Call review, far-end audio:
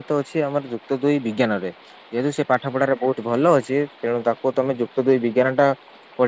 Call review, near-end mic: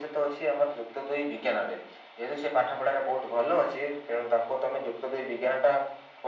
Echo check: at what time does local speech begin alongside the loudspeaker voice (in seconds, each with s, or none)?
none